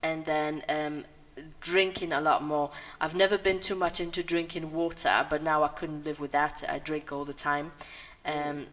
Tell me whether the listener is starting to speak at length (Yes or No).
No